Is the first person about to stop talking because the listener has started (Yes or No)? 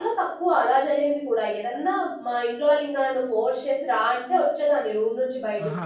Yes